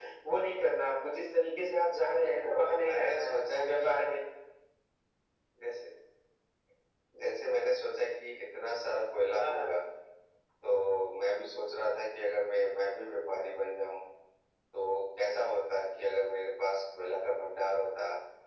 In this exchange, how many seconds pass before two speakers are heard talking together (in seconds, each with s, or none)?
2.2 s